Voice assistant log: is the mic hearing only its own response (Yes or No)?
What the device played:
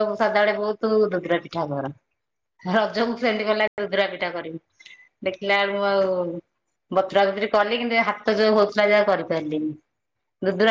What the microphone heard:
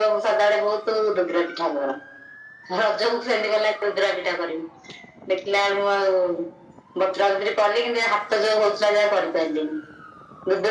Yes